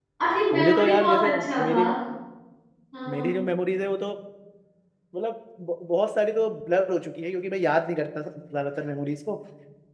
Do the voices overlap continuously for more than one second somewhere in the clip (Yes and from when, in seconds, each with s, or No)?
Yes, from 0.5 s